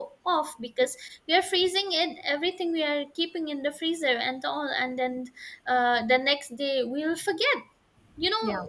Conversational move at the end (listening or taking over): listening